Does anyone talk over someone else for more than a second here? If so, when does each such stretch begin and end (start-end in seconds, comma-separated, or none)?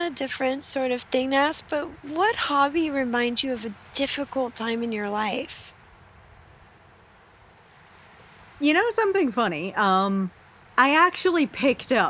none